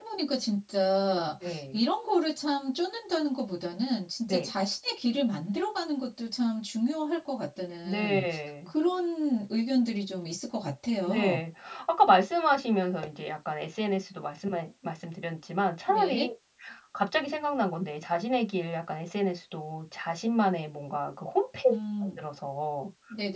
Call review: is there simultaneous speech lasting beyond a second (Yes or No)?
No